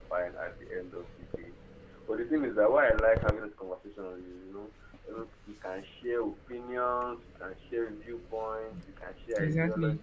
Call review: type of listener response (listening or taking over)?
listening